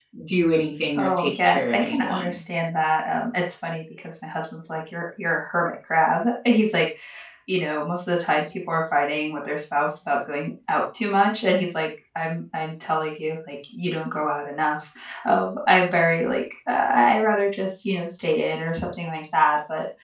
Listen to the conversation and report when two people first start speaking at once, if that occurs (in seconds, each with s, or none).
0.9 s